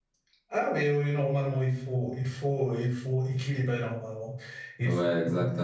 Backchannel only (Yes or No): No